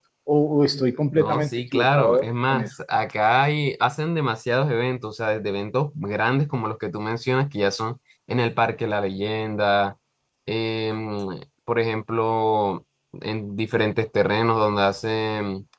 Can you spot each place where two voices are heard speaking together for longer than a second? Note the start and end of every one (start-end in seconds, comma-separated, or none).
1.1-2.7